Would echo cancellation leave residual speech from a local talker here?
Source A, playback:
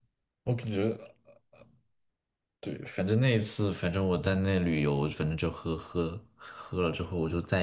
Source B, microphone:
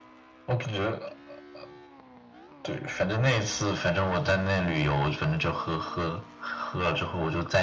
No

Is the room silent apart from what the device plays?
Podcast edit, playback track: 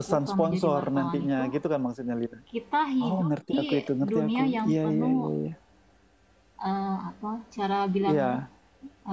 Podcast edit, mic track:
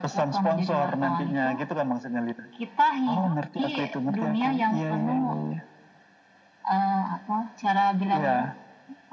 Yes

